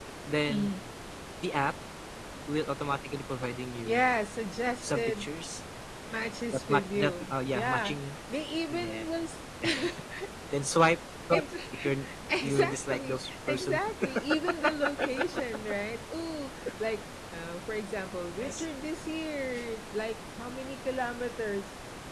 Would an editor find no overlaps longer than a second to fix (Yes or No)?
No